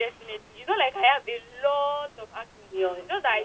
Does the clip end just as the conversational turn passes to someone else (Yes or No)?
Yes